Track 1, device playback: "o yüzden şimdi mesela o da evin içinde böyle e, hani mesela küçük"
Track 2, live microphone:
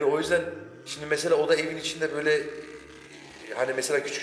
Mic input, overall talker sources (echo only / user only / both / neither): echo only